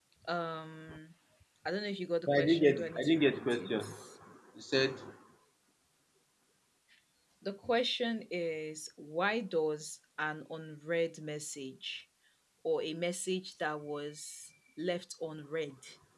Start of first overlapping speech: 2.3 s

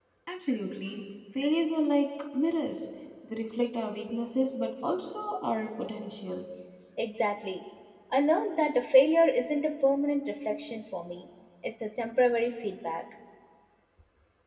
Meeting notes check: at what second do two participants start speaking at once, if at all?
none

